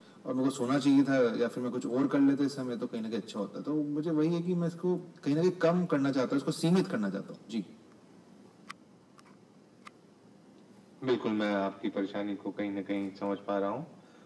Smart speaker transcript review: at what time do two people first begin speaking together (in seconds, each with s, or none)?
none